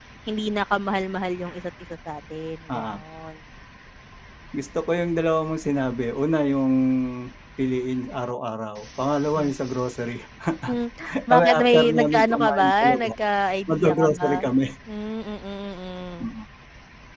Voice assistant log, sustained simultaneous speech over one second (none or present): present